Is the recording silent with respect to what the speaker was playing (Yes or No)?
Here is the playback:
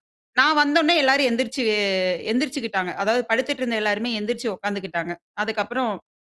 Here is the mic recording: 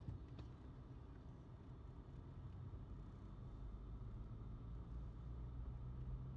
Yes